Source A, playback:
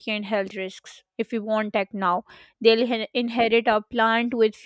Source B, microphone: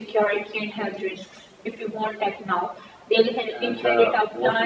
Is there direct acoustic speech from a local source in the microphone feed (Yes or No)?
Yes